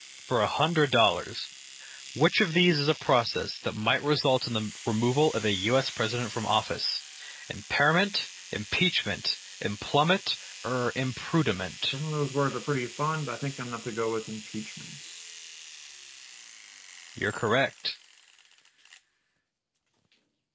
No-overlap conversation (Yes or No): Yes